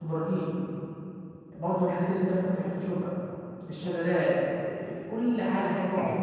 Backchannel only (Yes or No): No